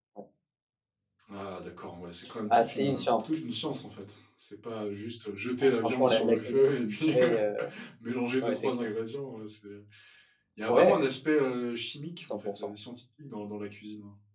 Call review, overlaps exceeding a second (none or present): present